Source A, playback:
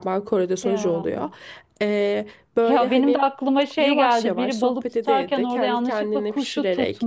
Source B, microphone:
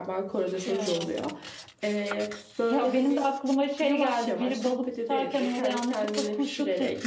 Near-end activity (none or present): none